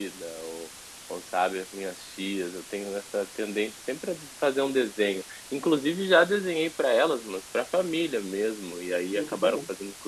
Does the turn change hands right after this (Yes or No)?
No